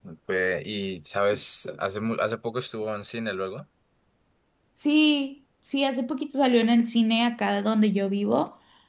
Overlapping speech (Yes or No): No